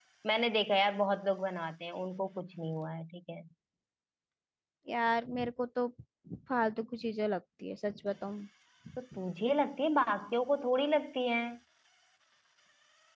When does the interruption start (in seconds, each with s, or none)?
none